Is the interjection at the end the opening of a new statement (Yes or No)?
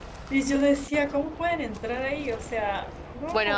Yes